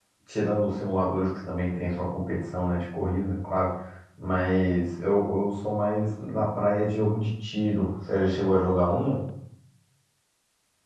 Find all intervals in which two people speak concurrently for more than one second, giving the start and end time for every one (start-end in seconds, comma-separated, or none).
none